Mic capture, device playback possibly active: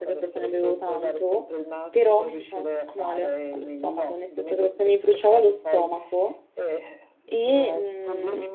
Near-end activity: present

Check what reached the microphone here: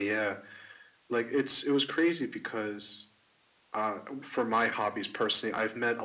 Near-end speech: none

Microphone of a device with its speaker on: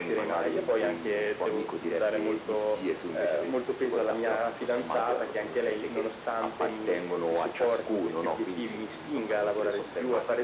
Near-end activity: none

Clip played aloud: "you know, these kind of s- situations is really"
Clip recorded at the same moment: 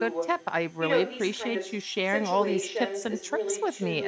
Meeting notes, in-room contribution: present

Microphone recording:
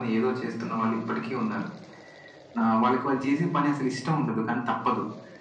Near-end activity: none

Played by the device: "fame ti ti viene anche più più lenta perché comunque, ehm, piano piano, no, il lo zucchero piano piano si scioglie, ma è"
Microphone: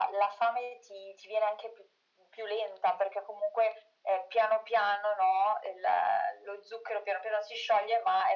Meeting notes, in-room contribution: none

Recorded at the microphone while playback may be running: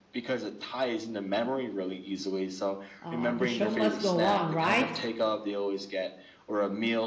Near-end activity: present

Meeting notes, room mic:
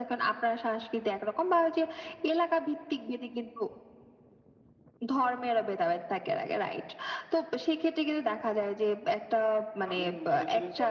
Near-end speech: present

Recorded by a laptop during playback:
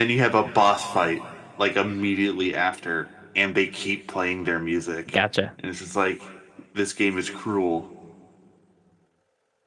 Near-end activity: present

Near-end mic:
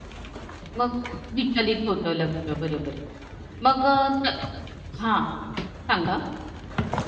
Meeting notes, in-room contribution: present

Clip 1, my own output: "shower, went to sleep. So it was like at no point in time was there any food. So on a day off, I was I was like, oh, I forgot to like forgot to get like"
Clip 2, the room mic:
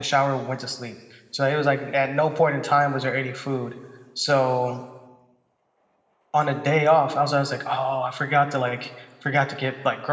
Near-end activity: none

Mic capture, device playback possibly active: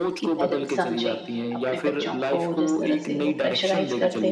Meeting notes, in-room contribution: present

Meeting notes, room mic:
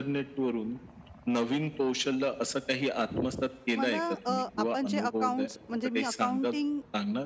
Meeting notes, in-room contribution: present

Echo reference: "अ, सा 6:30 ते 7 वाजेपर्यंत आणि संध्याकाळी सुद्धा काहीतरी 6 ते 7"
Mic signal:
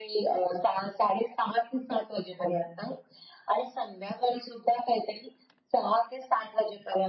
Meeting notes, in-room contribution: none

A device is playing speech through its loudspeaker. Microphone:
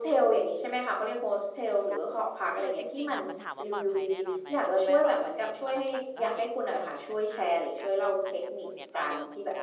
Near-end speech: present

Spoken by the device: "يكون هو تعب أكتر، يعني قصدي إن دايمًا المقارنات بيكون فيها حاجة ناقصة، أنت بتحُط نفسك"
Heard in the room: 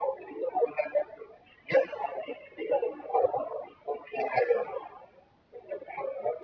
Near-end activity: none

